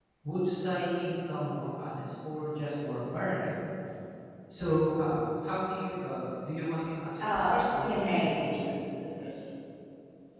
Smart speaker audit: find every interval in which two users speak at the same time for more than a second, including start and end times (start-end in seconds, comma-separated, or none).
7.2-8.7